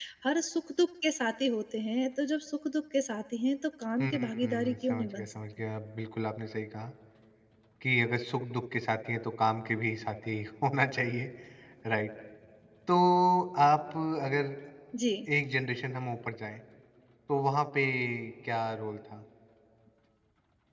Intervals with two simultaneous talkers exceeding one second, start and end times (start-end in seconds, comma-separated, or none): 4.0-5.4